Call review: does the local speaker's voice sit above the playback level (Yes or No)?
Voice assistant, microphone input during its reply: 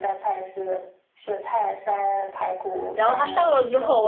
Yes